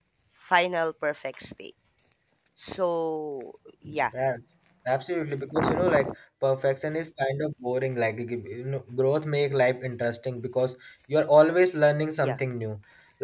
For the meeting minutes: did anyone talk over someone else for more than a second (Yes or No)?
No